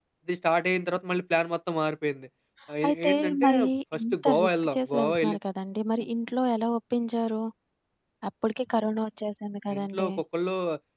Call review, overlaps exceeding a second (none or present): present